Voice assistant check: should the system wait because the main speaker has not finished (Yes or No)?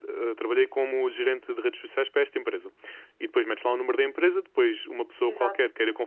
Yes